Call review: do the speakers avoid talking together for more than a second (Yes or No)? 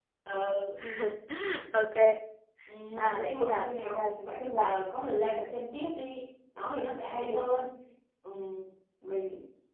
No